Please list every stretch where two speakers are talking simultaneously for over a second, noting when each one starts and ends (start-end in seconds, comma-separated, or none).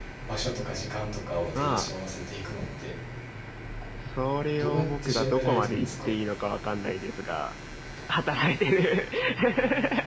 4.6-6.1